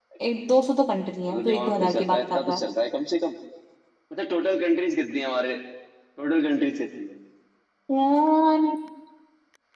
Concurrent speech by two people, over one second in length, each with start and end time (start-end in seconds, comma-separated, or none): 1.3-2.6